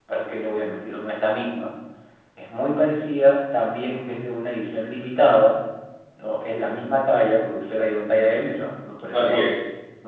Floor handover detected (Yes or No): No